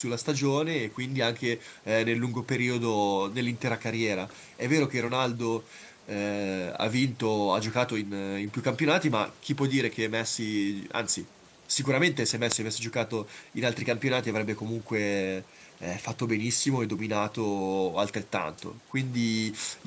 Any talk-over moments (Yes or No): No